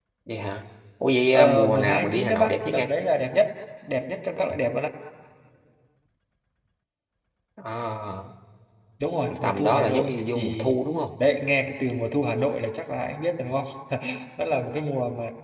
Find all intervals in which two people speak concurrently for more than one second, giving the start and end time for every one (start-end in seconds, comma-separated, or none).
1.3-2.9, 9.4-10.7